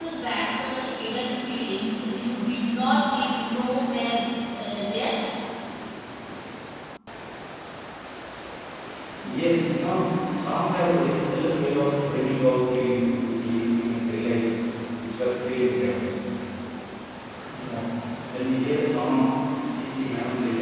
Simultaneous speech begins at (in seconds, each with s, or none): none